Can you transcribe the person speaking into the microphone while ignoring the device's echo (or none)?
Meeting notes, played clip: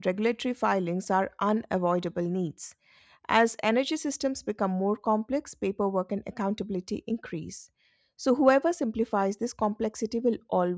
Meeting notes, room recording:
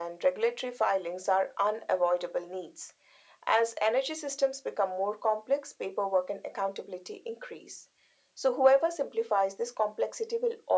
none